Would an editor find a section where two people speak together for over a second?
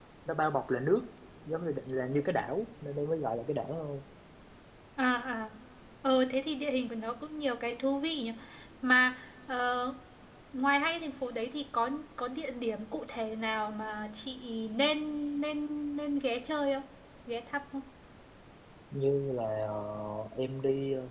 No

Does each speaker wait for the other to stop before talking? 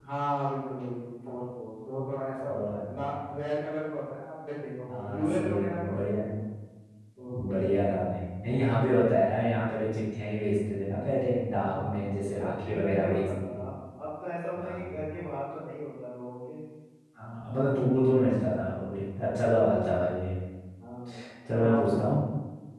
No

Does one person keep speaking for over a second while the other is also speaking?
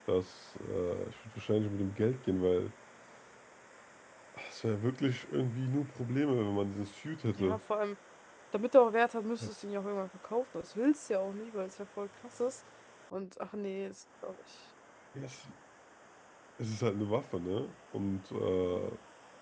No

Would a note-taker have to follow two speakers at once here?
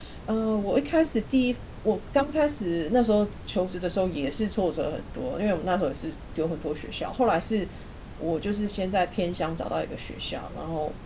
No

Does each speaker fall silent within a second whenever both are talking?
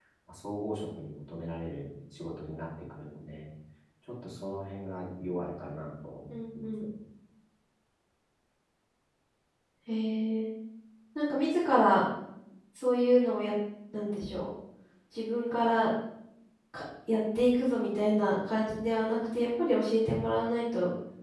Yes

